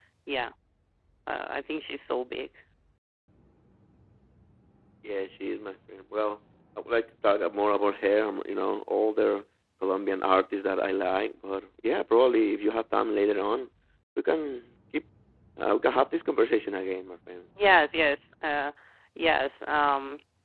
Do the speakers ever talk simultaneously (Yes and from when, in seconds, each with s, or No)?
No